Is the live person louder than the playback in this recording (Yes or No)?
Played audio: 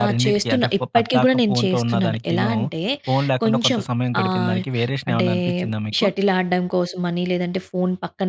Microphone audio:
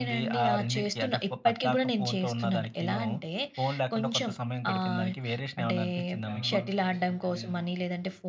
No